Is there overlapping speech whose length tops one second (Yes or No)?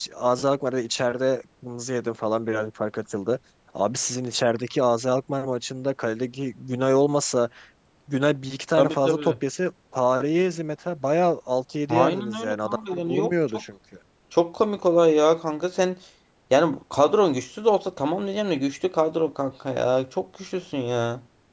Yes